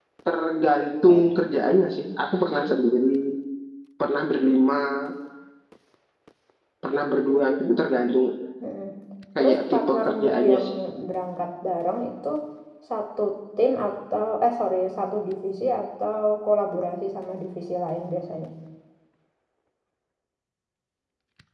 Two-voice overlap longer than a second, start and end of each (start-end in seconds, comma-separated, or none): 9.4-10.6